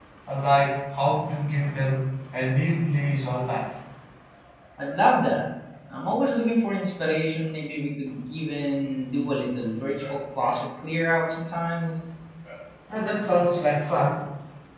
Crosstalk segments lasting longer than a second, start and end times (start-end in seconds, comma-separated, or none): none